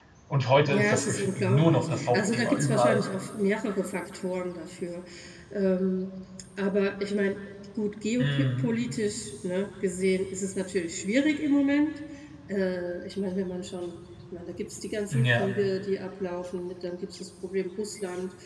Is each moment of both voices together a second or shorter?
No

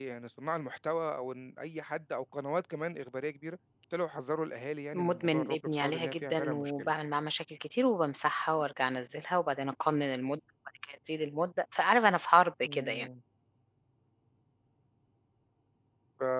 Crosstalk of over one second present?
Yes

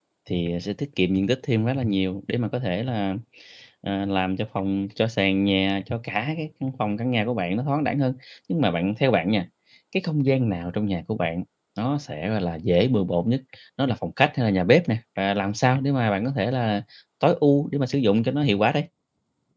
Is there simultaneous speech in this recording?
No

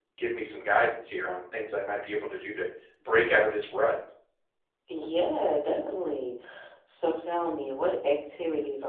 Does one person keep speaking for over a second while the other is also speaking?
No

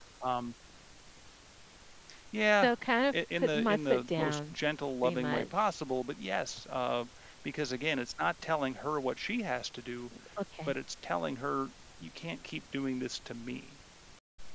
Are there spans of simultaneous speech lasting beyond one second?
Yes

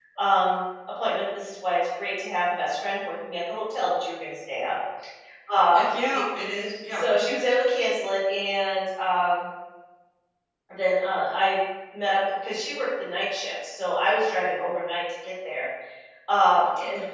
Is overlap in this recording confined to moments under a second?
Yes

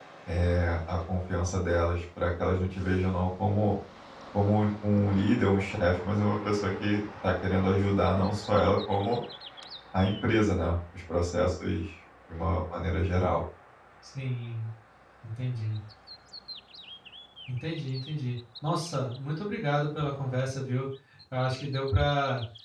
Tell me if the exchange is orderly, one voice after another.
Yes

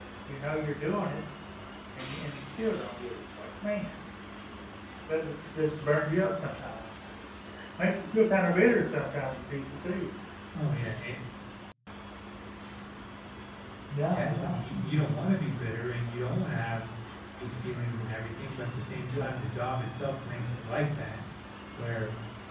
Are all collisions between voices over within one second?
Yes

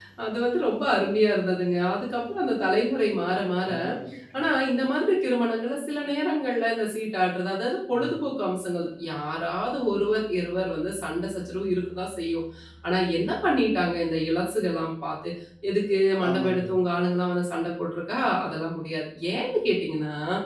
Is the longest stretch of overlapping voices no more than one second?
Yes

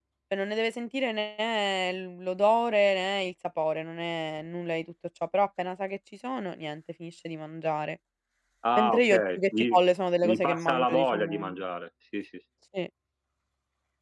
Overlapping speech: Yes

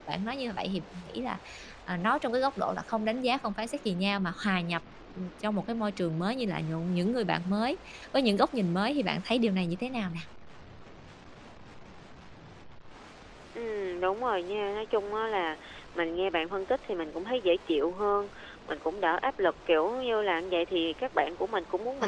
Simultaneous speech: No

